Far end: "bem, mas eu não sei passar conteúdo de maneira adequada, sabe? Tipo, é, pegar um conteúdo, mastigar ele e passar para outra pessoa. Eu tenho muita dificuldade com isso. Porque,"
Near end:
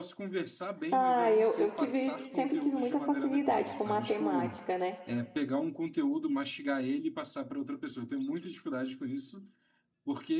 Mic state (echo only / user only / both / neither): both